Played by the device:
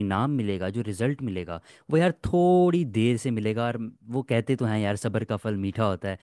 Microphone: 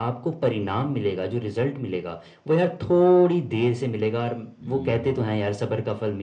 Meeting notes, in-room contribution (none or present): present